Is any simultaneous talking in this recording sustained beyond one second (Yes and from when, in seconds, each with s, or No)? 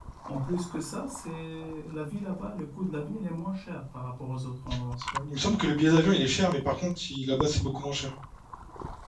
No